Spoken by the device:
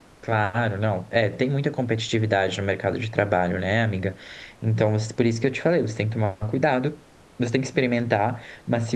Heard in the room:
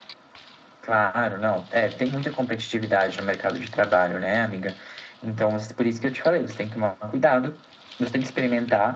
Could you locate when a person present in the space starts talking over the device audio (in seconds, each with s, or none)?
none